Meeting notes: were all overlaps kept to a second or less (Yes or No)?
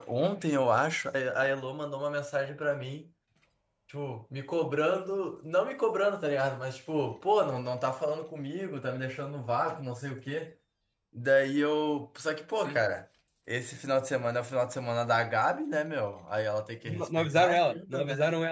No